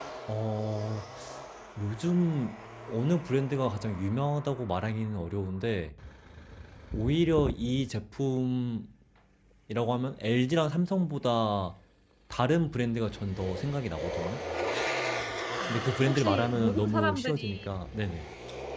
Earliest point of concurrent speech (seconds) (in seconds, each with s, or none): 15.7 s